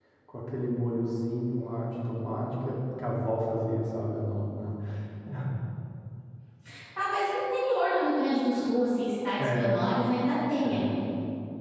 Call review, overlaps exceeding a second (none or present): none